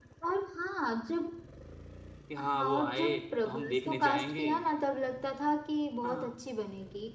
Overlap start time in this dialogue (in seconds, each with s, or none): 2.4 s